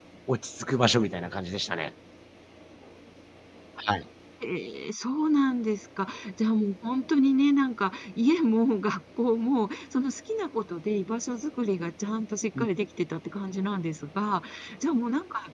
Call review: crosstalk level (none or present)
none